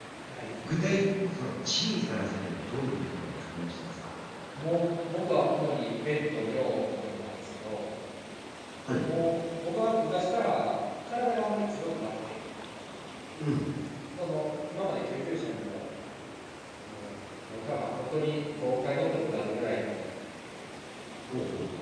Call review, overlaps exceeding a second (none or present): none